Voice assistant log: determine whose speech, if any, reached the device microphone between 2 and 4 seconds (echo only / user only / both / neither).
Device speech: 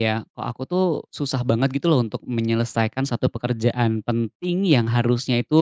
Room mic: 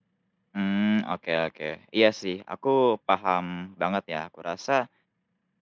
user only